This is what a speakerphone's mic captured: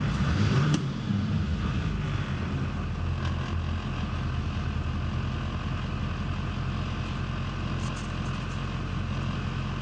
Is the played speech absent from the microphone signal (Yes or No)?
Yes